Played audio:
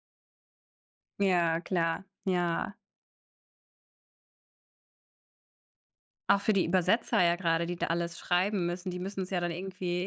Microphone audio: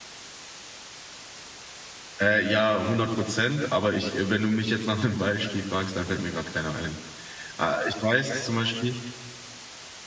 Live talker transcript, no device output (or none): Äh, ja, 100 %, aber ich äh, wenn du mich jetzt nach 'nem Beispiel fragst, dann fällt mir grad keiner ein. Äh, ich weiß zum Beispiel